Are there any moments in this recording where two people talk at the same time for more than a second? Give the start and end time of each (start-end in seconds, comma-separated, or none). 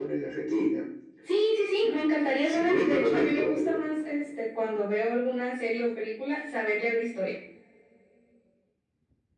2.5-3.8